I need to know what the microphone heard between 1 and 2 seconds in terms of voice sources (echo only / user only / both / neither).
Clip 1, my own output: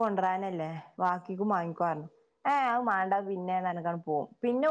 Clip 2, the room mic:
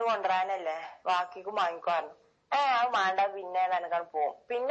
echo only